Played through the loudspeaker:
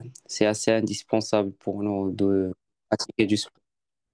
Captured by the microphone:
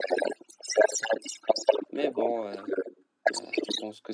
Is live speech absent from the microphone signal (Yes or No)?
No